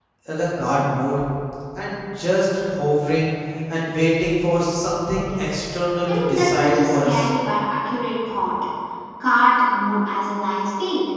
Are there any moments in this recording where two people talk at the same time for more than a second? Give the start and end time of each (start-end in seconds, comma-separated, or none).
6.1-7.3